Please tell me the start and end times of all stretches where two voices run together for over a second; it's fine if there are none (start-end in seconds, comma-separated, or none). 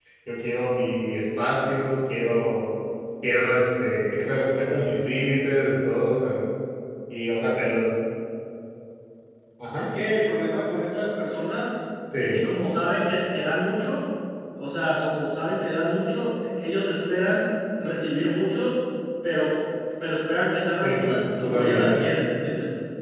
20.8-22.1